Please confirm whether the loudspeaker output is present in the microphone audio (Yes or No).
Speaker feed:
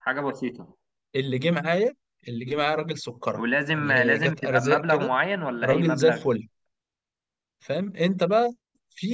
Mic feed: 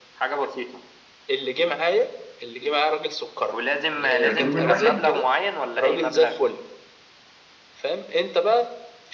Yes